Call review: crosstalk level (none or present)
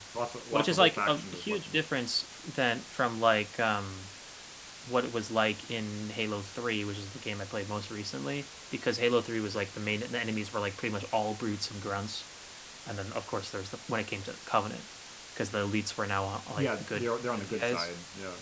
present